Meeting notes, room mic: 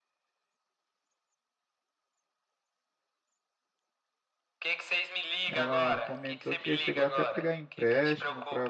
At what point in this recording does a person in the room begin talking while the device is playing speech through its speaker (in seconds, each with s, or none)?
5.5 s